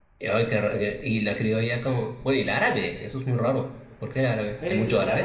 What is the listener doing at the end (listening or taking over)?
taking over